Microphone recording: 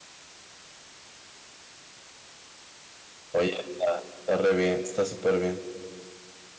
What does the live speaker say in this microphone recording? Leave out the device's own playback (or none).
oye, está, está re bien, está súper bien.